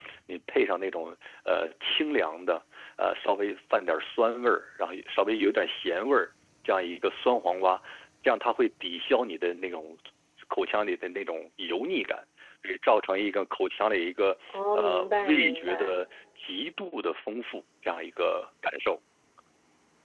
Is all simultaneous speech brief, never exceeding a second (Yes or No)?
No